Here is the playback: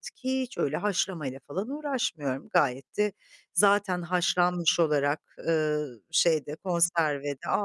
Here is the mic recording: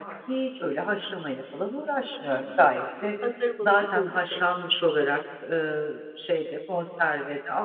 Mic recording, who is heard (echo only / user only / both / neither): both